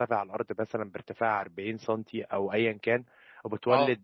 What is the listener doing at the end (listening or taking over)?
listening